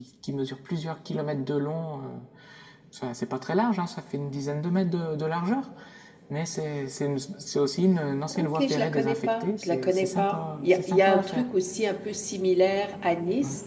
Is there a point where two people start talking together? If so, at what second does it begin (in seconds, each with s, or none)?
8.3 s